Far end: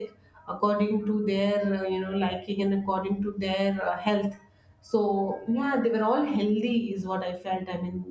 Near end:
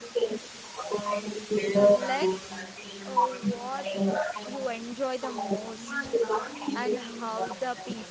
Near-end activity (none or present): present